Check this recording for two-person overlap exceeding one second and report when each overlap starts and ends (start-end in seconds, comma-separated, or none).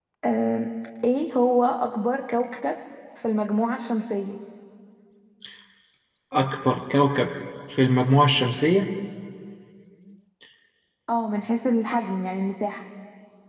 none